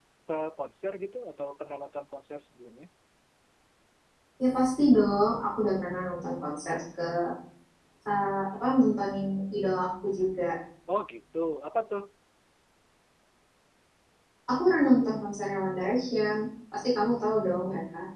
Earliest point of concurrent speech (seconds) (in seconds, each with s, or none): none